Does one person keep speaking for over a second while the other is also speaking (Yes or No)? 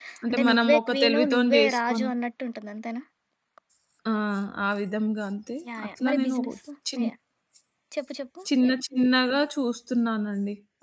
Yes